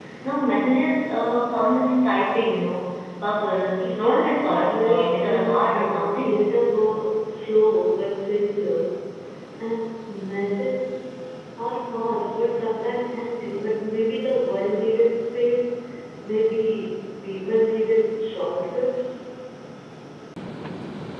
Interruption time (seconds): 3.8 s

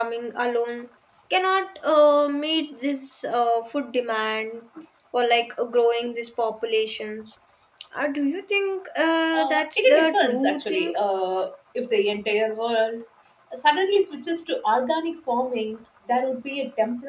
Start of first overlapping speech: 9.3 s

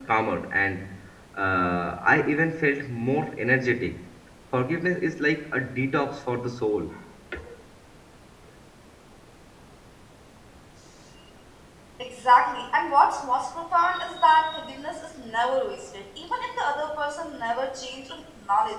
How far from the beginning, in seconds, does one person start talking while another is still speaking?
none

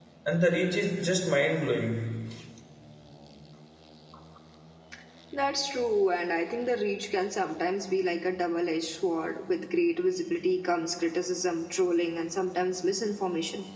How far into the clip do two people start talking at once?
none

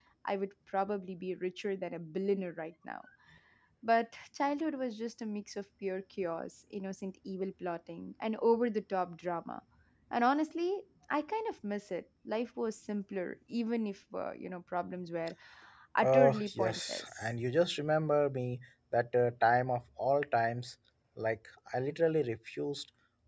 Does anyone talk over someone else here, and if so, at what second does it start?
16.0 s

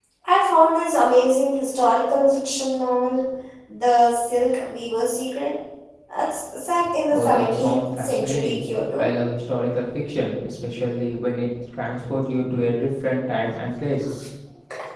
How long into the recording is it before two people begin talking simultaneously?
7.1 s

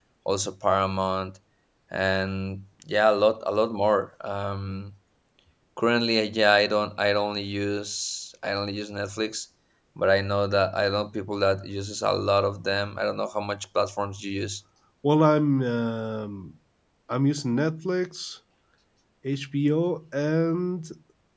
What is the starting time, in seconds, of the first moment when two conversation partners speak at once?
none

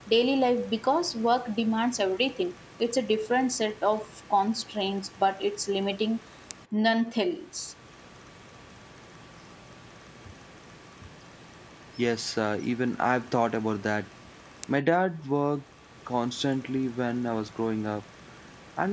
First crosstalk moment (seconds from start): none

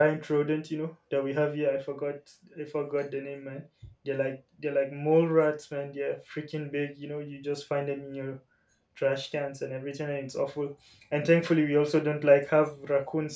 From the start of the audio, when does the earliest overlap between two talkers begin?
none

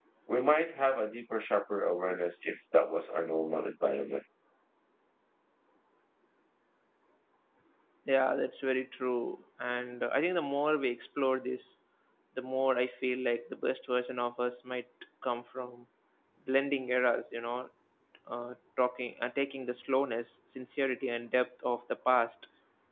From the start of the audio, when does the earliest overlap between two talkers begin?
none

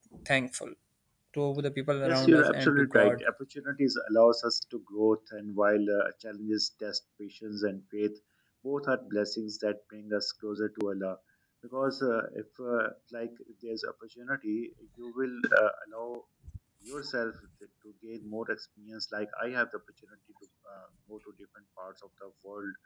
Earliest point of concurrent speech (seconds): 2.0 s

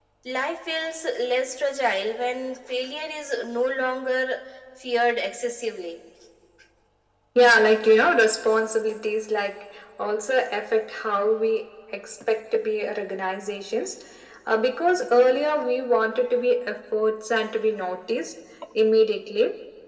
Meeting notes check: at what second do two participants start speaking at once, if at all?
none

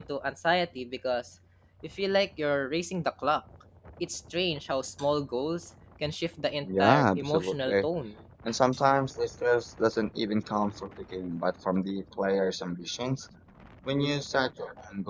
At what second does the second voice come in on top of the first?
6.6 s

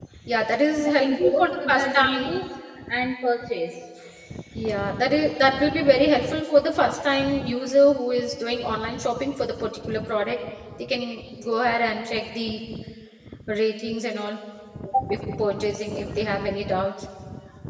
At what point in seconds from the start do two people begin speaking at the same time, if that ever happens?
0.8 s

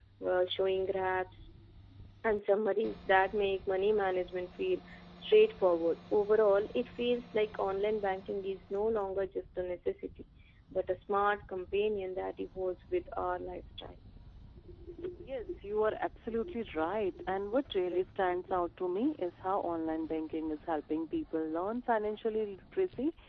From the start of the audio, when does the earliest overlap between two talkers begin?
none

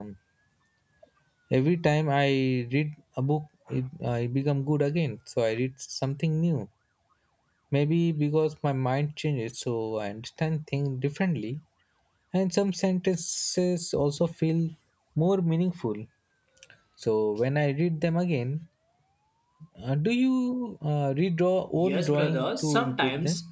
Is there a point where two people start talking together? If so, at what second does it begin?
21.8 s

